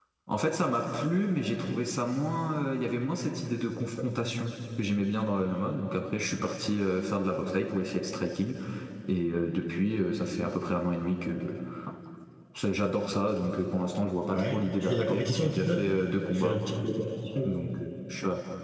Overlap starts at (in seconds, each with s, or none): 14.3 s